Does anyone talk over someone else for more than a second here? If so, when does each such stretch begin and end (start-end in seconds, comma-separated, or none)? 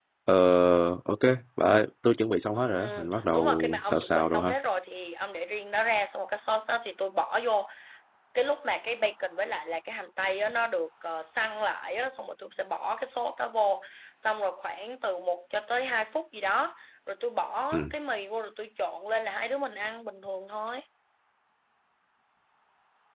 2.8-4.5